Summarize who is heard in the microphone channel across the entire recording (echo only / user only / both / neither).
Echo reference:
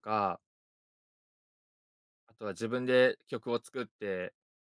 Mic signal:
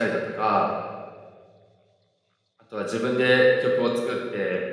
echo only